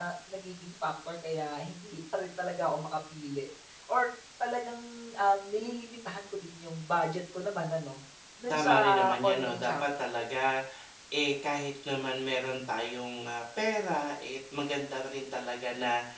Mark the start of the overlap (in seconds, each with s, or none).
8.5 s